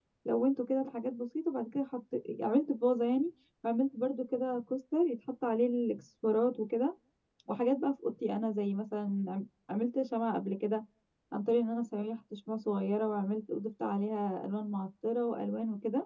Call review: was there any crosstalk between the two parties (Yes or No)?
No